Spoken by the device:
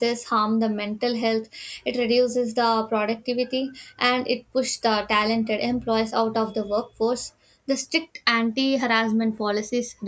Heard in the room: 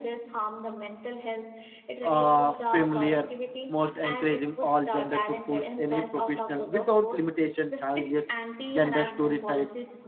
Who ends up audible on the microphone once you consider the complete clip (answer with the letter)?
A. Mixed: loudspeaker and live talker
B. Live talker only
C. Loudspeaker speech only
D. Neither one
A